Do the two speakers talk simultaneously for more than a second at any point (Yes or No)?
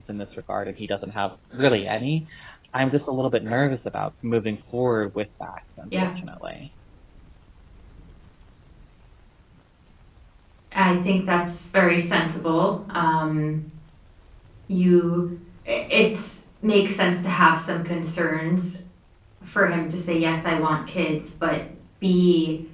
No